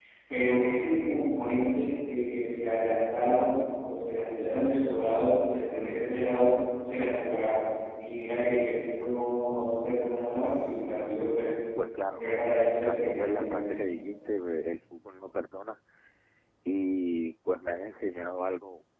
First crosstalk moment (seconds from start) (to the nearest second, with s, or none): 12 s